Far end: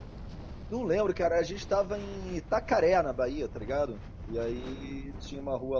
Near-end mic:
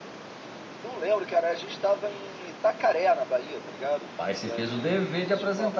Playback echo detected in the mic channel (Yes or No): Yes